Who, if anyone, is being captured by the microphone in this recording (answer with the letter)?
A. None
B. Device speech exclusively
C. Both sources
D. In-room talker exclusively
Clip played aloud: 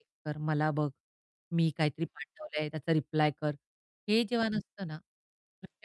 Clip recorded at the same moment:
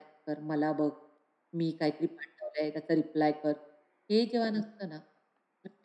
B